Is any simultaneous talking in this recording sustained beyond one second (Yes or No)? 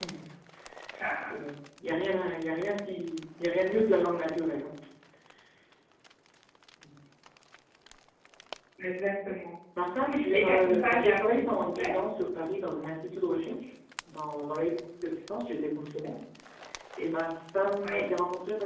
Yes